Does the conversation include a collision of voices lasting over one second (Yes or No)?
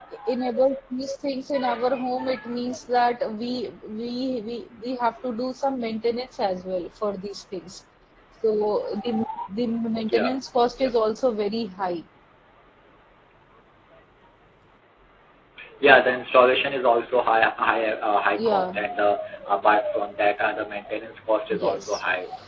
No